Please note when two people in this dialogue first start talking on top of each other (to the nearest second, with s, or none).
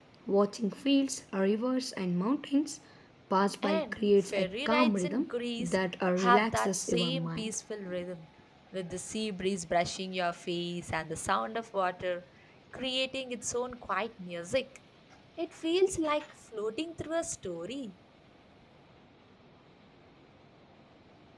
4 s